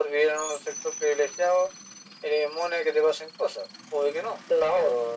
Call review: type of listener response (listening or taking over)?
listening